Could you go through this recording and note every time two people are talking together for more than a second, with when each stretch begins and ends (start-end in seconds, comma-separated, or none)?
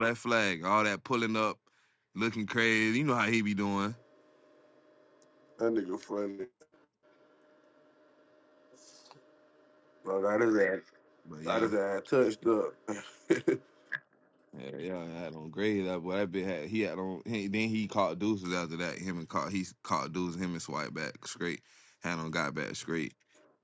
none